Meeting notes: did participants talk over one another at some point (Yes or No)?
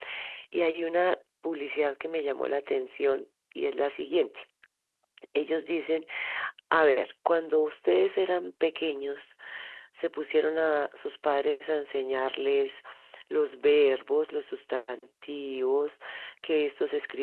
No